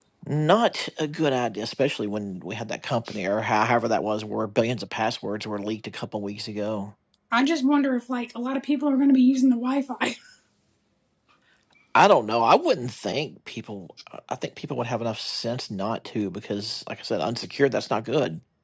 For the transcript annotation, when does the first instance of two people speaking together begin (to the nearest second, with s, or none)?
none